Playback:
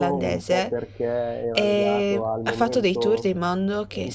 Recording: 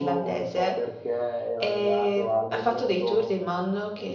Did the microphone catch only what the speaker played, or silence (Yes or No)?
Yes